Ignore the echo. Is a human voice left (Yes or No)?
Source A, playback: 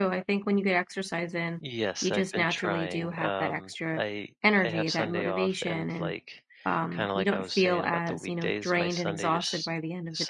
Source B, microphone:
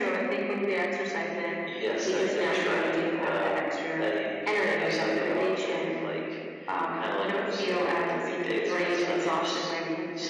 No